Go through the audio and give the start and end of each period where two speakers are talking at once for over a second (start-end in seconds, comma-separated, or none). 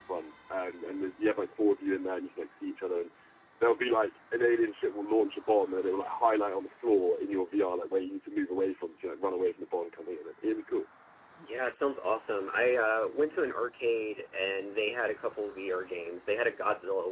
none